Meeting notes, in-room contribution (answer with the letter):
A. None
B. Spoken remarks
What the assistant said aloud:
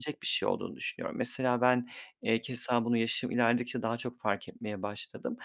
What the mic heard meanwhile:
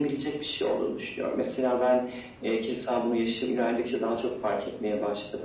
A